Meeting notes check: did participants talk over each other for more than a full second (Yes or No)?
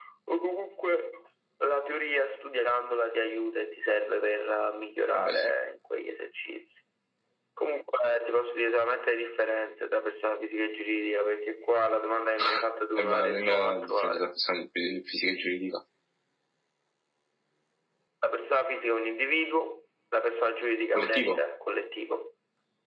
Yes